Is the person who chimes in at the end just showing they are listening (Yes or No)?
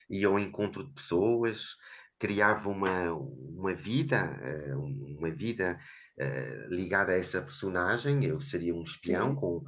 Yes